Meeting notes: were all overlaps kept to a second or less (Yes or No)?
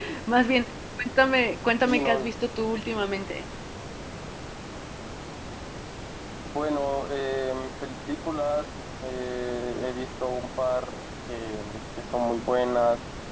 Yes